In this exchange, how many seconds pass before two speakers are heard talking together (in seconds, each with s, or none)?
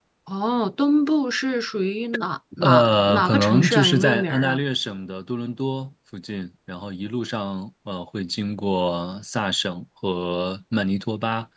2.5 s